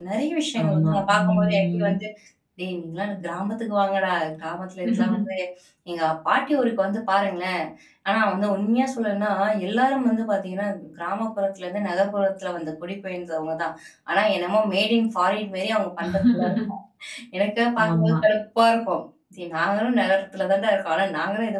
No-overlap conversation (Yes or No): No